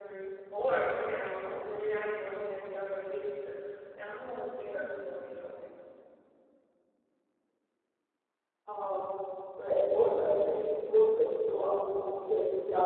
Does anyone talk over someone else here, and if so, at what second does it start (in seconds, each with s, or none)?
none